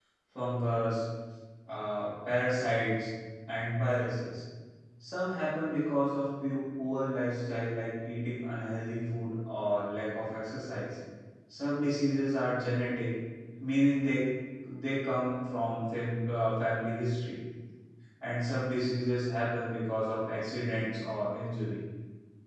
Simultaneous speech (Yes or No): No